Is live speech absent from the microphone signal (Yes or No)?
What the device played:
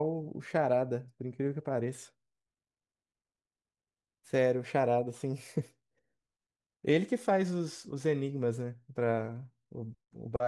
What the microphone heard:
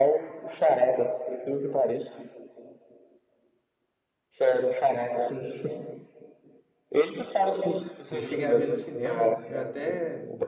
No